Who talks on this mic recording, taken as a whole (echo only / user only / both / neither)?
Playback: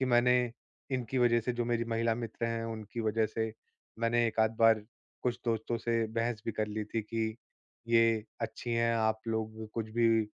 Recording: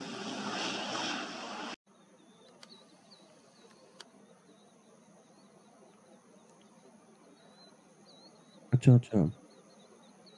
user only